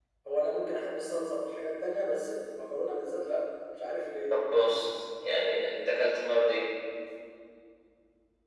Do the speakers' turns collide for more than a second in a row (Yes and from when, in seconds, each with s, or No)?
No